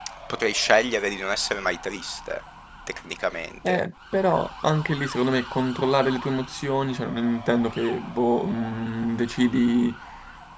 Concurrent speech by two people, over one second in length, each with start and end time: none

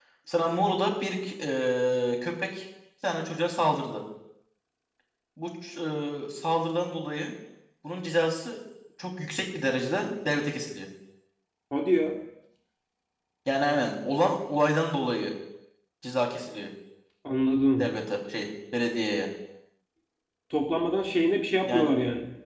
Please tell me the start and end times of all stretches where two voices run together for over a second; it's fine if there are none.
none

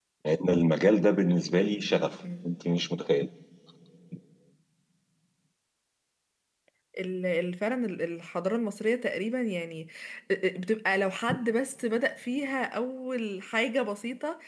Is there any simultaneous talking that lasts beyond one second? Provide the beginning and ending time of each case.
none

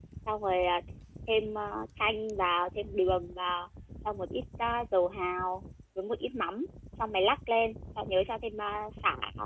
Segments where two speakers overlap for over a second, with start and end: none

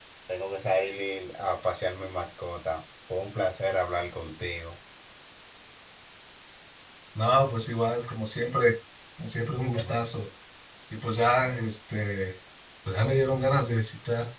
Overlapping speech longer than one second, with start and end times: none

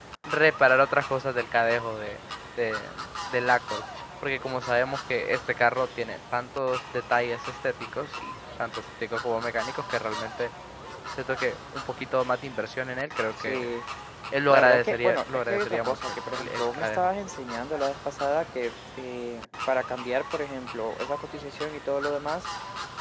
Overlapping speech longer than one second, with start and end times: 14.5-17.1

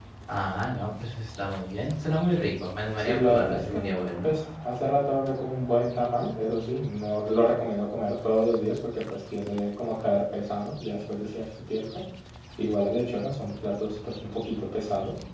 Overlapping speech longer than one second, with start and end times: 3.0-4.3

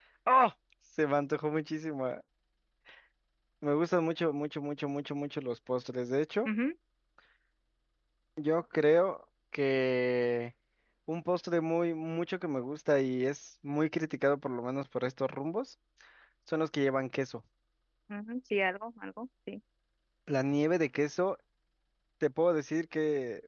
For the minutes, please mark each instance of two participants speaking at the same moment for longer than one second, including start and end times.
none

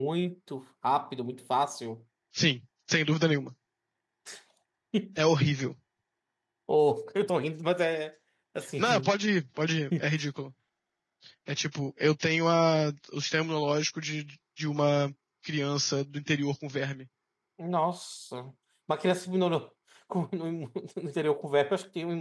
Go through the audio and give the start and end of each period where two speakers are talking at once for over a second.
none

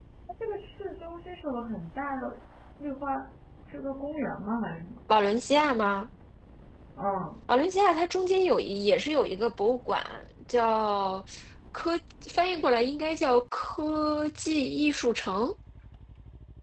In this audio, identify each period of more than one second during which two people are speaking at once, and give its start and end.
none

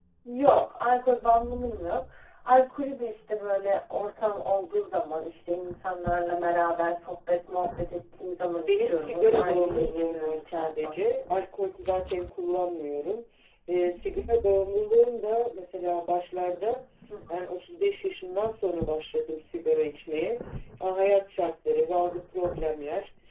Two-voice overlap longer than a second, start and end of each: 8.7-10.9

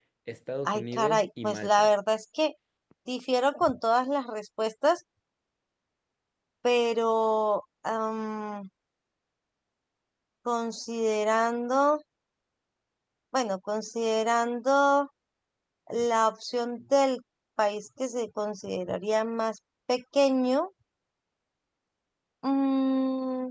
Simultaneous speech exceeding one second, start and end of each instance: 0.7-1.9

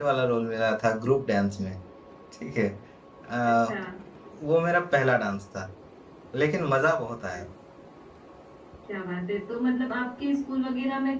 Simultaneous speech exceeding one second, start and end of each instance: none

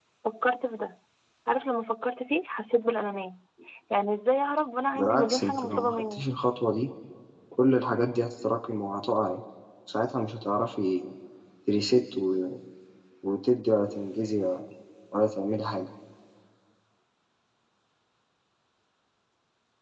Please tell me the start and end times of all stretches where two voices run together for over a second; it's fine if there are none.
5.0-6.3

